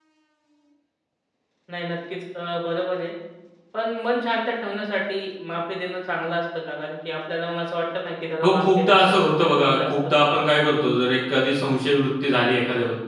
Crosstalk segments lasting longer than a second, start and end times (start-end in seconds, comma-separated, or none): 8.4-9.9